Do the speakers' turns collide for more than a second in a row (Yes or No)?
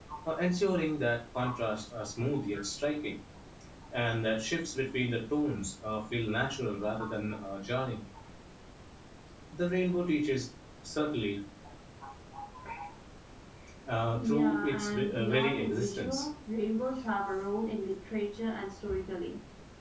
Yes